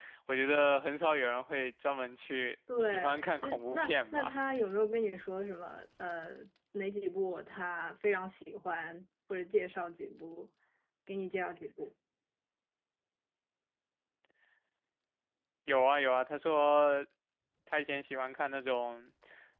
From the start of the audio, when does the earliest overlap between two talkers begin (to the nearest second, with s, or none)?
3 s